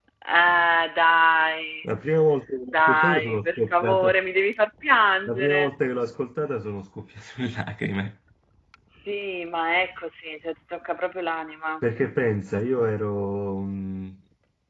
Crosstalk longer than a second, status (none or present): present